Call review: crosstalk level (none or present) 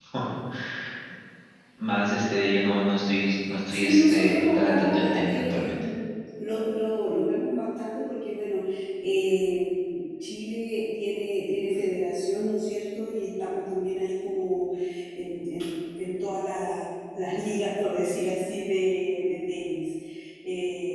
present